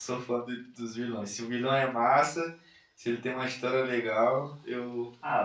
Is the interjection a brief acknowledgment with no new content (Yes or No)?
No